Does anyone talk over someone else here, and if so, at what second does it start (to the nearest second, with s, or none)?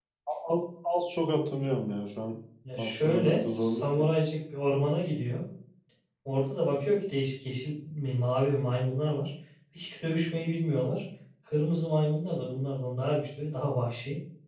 3 s